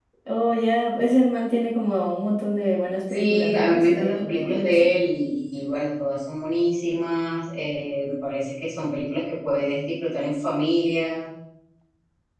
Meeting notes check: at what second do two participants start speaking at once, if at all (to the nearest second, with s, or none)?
3 s